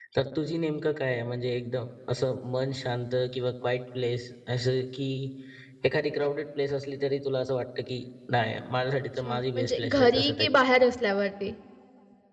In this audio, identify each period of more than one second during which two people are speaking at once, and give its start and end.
9.2-10.5

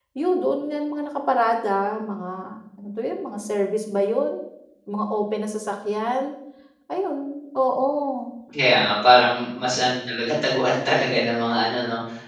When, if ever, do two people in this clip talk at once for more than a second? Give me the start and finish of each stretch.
none

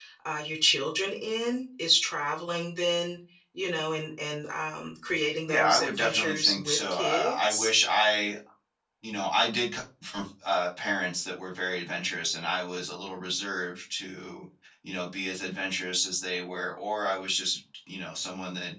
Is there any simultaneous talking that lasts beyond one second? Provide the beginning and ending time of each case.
5.5-7.7

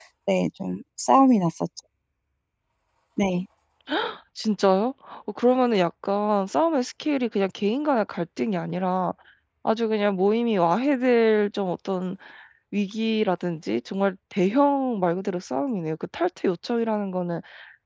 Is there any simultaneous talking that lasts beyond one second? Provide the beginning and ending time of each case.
none

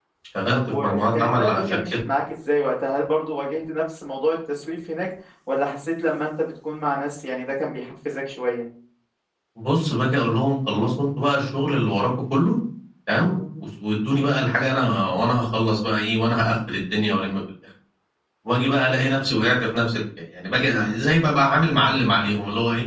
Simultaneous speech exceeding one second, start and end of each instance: 0.5-1.8

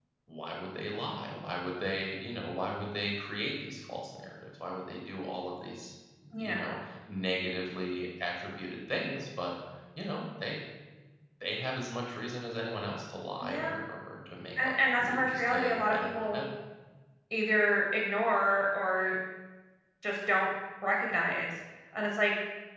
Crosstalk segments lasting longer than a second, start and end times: 14.6-16.4

